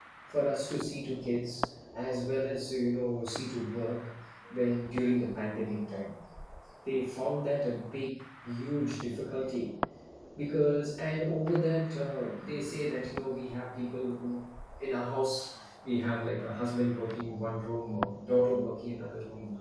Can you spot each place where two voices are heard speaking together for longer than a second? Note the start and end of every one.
none

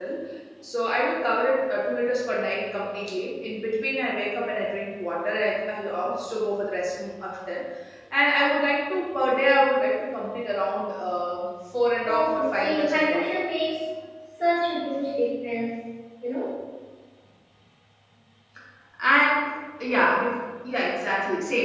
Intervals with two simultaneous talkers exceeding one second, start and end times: 12.1-13.3

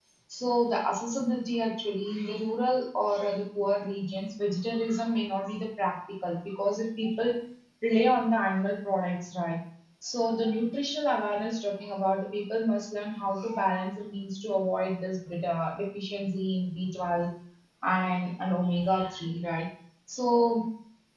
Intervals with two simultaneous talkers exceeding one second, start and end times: none

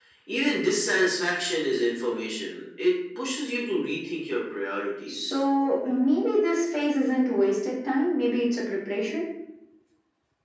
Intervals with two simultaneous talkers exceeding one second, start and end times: none

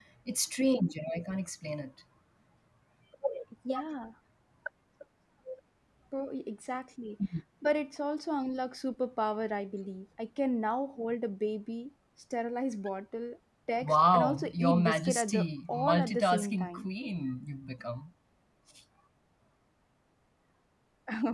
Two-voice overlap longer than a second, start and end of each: 13.8-16.9

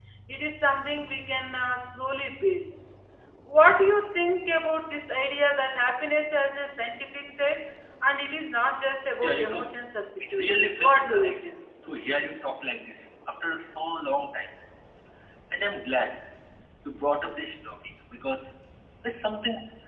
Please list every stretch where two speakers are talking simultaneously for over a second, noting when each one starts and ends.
10.2-11.4

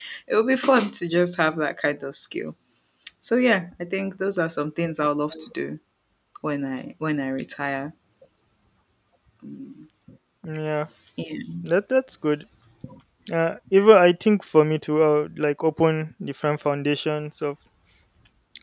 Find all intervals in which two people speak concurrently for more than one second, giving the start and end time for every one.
none

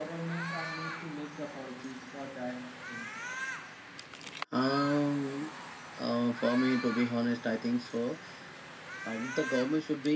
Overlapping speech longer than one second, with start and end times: none

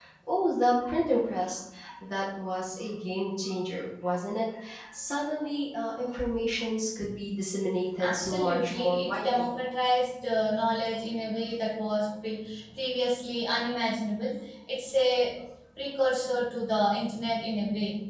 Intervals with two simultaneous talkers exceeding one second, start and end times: 8.0-9.5

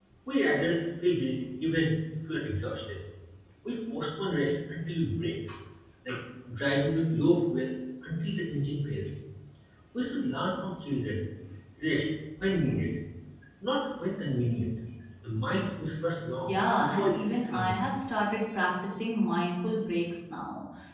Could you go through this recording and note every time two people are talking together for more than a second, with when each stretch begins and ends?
16.4-17.8

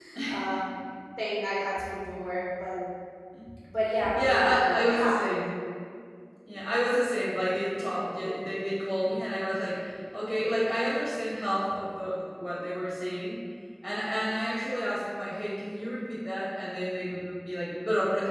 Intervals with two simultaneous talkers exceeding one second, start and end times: 4.2-5.4

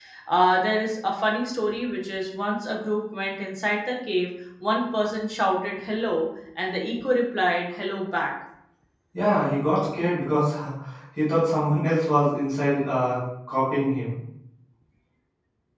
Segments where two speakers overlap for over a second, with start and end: none

